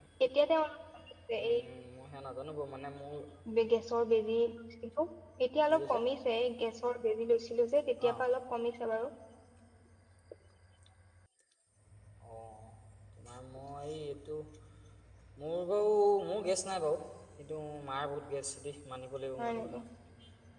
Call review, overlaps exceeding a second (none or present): none